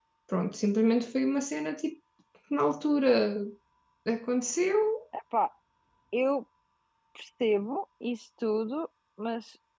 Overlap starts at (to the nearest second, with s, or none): none